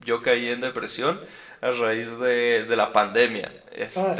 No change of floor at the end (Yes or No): No